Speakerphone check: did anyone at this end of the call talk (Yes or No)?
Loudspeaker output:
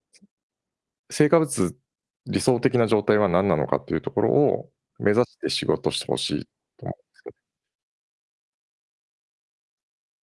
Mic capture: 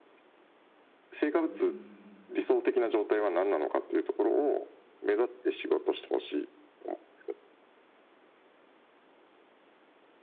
Yes